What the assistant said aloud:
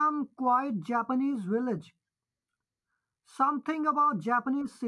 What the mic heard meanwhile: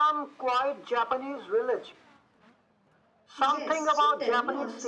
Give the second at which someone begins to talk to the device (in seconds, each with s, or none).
3.4 s